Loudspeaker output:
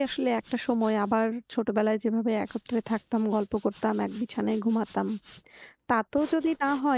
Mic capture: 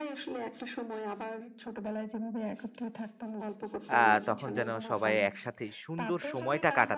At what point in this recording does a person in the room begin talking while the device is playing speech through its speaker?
4.0 s

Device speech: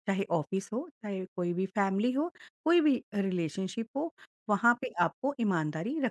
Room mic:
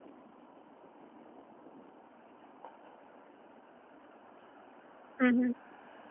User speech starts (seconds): 5.2 s

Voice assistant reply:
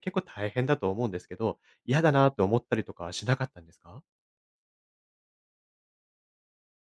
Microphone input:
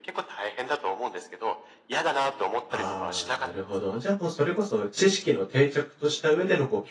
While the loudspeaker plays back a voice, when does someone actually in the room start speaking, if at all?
2.7 s

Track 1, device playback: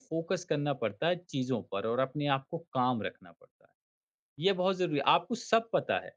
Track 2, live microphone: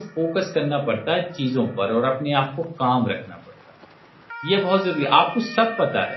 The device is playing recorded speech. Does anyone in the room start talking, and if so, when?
none

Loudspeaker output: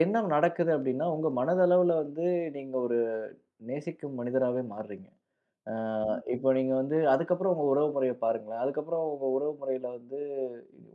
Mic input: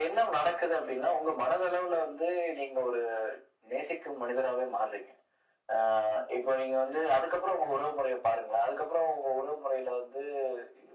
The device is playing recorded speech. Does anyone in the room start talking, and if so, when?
none

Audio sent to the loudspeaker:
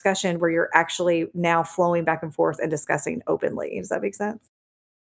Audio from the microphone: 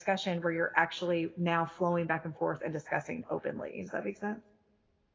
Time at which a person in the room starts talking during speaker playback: none

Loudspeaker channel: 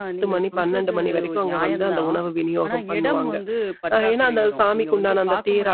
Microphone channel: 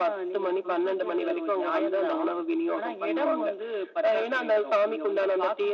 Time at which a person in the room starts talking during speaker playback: none

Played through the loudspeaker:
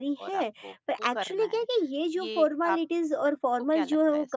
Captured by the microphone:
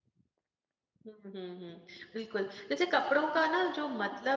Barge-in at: 1.1 s

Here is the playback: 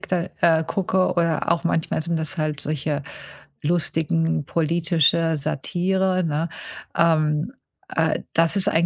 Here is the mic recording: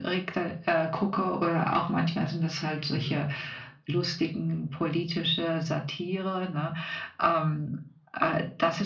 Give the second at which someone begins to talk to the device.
2.9 s

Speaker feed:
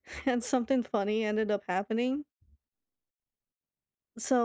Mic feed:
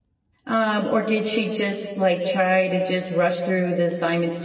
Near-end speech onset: 0.5 s

